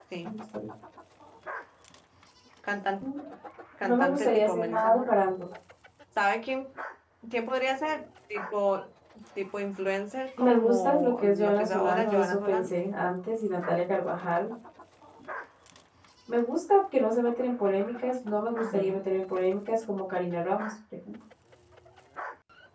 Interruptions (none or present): present